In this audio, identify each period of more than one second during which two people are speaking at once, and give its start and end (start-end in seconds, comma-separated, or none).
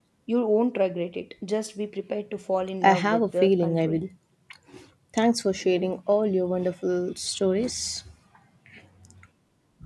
2.8-4.0